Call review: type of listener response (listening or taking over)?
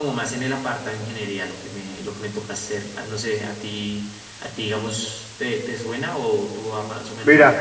taking over